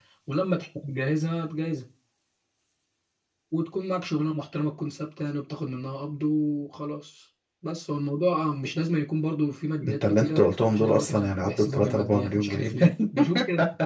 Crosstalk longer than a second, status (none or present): present